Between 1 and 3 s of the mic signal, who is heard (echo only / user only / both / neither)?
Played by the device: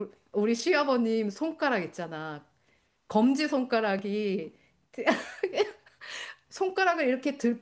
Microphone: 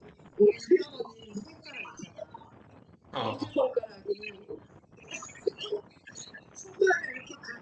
echo only